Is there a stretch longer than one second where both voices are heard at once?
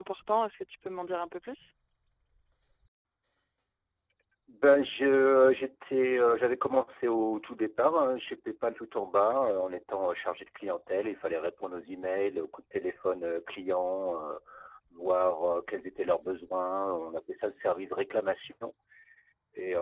No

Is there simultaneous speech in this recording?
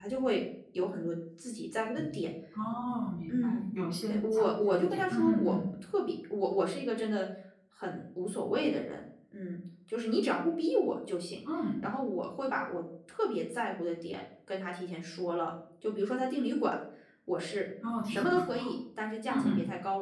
Yes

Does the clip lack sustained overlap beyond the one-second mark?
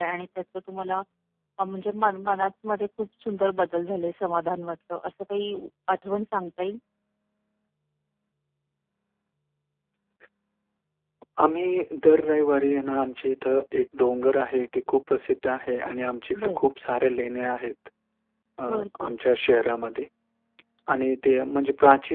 Yes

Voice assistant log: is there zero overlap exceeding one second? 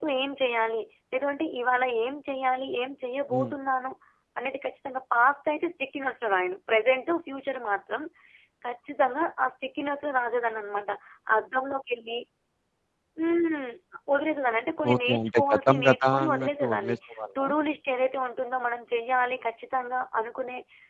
No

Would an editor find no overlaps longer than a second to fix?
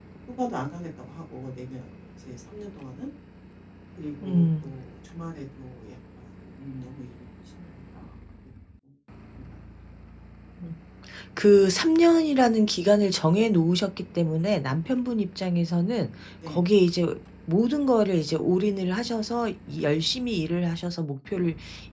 Yes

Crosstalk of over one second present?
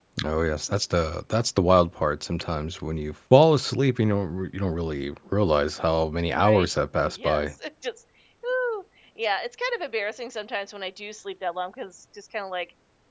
No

